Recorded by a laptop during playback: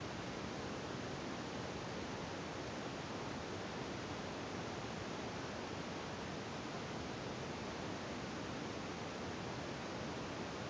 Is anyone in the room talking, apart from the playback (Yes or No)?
No